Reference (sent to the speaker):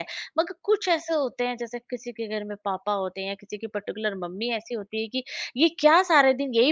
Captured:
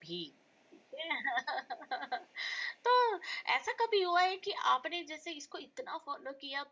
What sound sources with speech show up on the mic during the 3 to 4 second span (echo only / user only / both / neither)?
user only